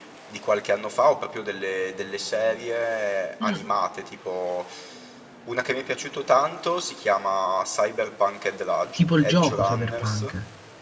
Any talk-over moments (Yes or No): Yes